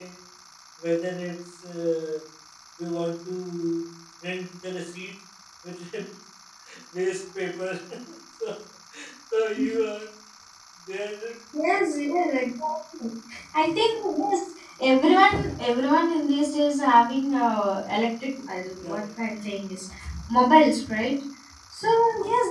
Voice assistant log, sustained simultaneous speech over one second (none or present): none